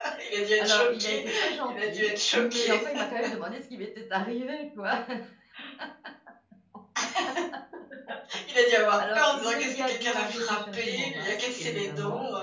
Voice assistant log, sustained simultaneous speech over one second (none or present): present